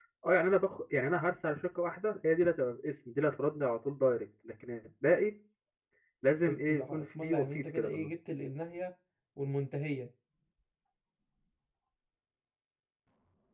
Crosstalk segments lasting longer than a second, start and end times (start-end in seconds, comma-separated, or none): 6.4-8.1